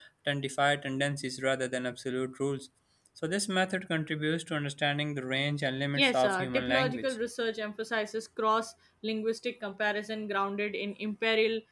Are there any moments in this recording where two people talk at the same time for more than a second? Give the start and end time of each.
6.0-7.2

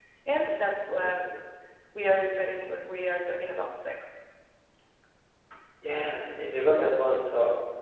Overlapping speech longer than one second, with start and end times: none

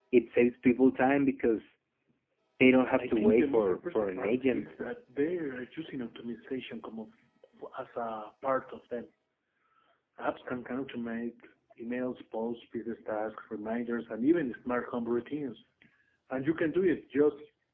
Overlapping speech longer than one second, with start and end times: 3.0-4.7

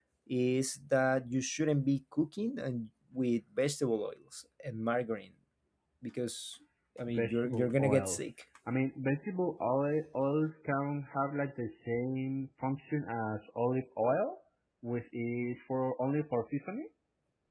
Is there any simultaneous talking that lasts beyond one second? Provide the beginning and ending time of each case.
7.1-8.3

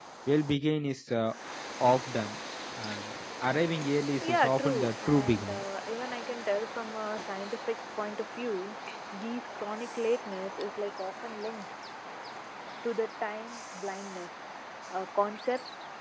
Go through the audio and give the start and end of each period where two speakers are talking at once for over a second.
4.2-5.6

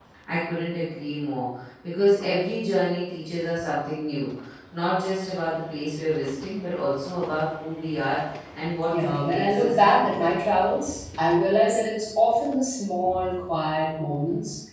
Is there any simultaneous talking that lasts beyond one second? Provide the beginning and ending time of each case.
8.9-10.2

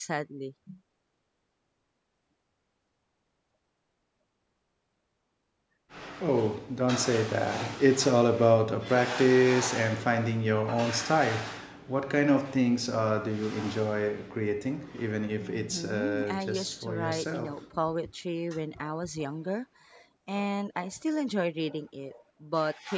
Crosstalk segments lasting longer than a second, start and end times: 15.4-17.5

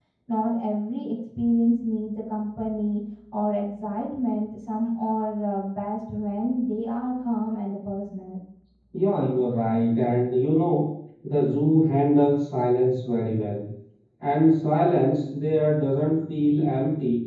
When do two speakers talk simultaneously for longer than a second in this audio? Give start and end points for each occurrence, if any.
none

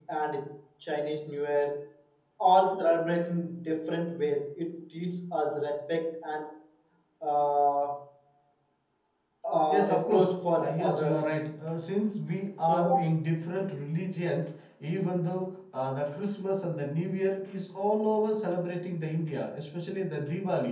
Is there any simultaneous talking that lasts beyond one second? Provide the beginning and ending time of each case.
9.7-11.3

